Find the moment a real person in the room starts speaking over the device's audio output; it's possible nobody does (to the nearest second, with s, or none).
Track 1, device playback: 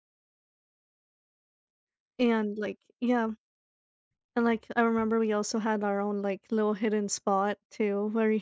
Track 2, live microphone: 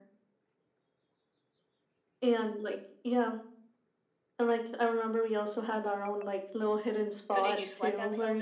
7 s